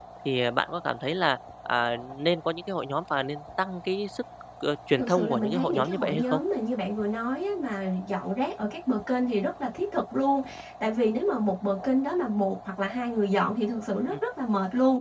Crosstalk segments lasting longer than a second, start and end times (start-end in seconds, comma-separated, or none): 5.0-6.4